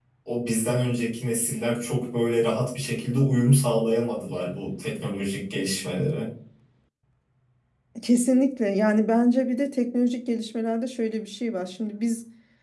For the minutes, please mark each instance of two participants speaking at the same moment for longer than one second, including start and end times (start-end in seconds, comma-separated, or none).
none